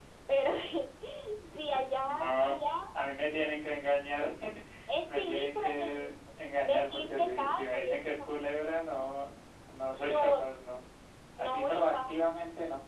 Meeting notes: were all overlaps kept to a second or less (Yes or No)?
No